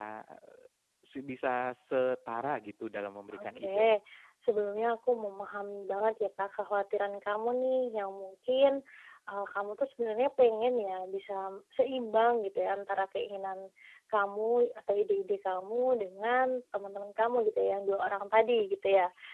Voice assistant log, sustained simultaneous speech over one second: none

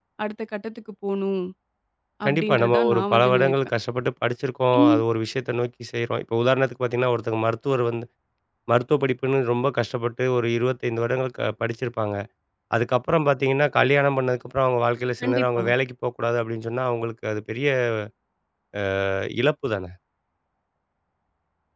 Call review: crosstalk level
present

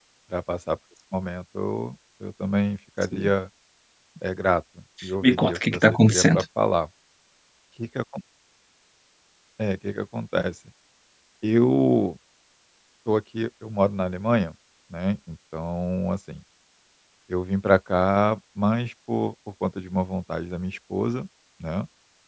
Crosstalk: present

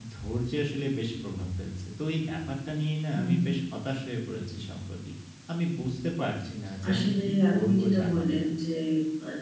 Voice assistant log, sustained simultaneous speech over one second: present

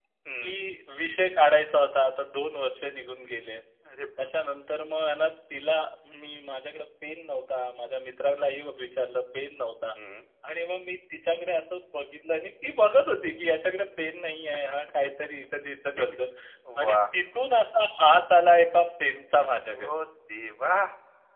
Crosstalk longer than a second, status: none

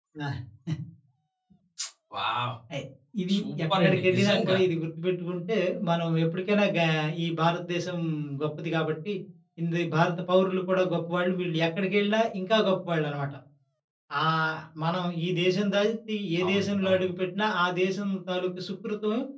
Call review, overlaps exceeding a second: present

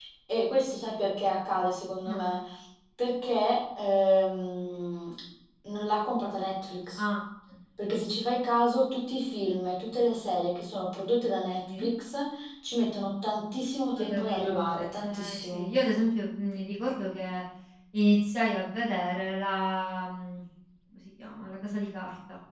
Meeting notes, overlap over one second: present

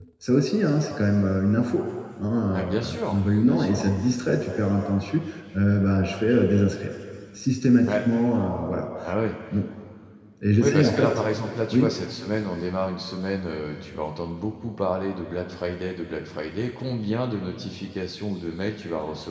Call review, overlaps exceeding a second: present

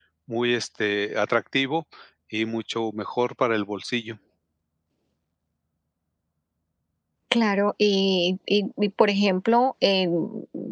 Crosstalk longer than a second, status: none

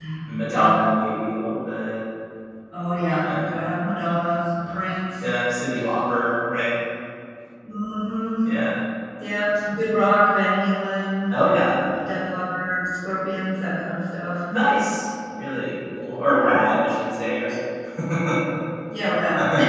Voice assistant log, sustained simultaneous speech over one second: none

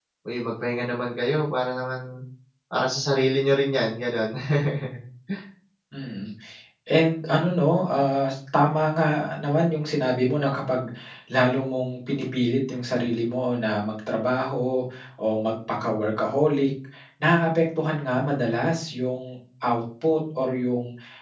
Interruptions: none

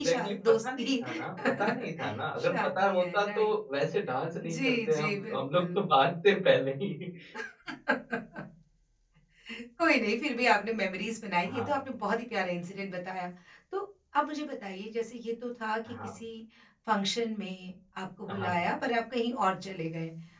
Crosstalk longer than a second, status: present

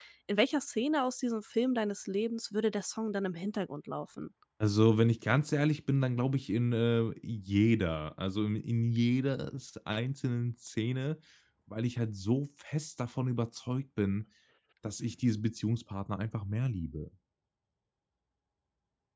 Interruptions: none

